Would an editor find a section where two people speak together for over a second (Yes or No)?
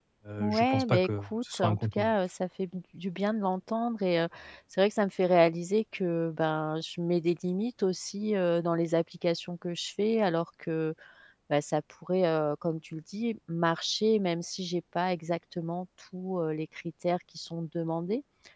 Yes